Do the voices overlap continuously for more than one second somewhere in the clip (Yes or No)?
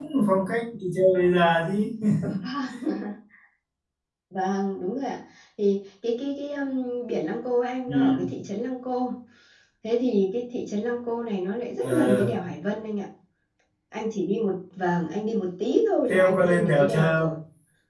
Yes